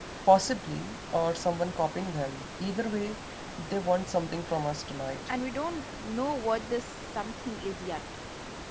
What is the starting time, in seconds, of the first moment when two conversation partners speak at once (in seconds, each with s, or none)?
none